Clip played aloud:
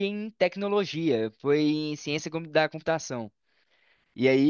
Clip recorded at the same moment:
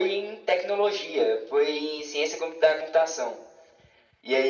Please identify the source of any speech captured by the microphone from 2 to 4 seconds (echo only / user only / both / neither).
echo only